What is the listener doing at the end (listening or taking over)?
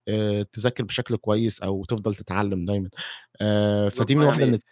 taking over